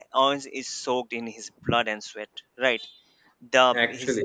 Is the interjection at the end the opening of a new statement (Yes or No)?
No